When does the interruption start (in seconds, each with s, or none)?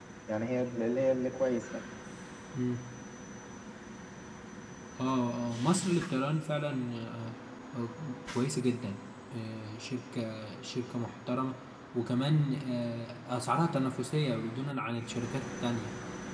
none